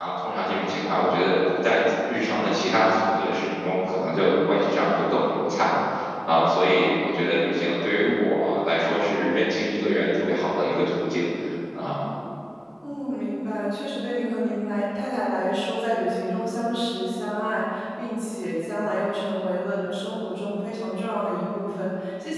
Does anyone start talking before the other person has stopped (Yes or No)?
No